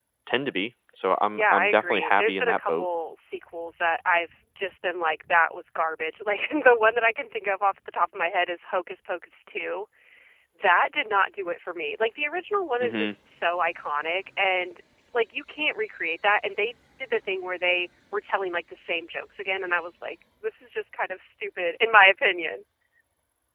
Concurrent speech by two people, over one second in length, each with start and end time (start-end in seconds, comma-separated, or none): 1.3-2.9